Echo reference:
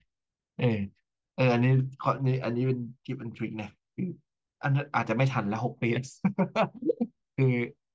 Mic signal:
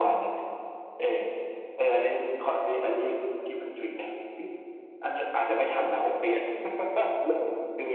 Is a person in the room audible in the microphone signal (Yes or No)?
No